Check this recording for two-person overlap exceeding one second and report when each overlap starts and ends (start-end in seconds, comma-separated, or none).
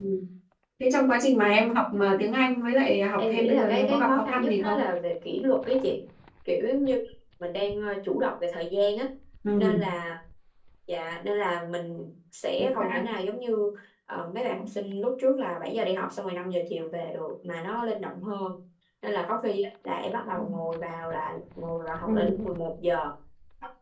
3.2-4.9